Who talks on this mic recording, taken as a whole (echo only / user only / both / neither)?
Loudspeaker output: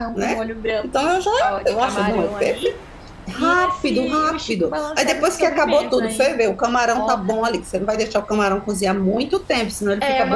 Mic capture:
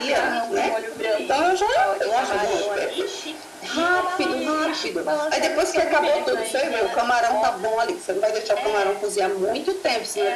both